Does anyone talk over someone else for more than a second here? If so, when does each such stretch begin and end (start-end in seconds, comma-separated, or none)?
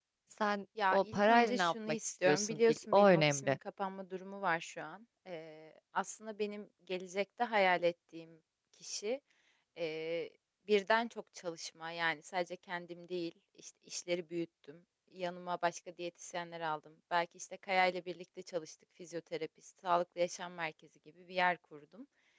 0.9-3.6